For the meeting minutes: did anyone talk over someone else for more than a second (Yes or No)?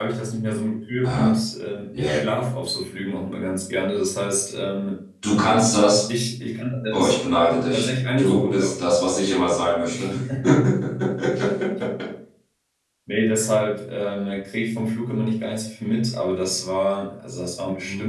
Yes